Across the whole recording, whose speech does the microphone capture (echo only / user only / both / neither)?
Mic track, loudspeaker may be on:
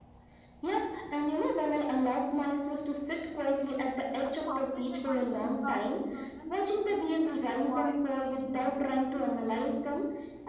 both